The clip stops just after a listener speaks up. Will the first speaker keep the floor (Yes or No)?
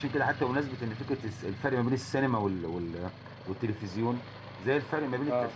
Yes